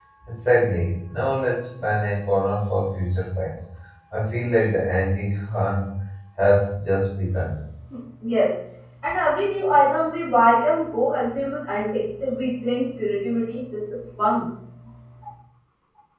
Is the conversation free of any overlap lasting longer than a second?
Yes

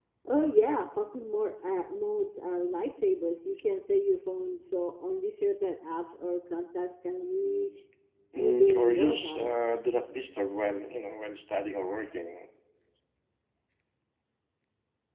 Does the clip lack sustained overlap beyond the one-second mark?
No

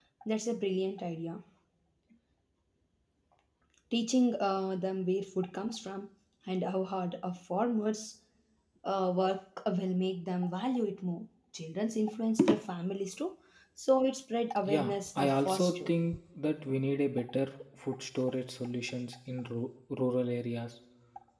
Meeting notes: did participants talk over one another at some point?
Yes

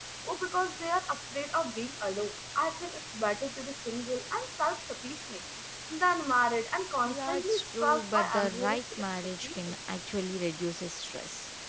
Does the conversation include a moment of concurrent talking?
Yes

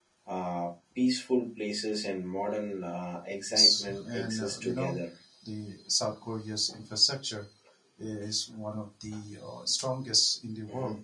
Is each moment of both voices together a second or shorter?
No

